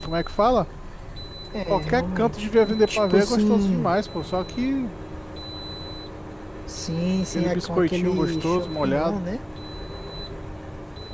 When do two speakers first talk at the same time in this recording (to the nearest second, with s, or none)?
2 s